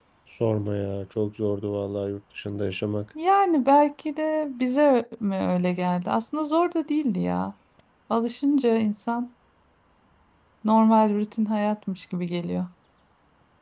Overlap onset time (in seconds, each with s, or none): none